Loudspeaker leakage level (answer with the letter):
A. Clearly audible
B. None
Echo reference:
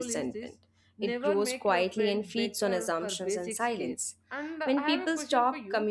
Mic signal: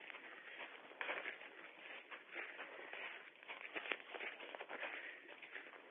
B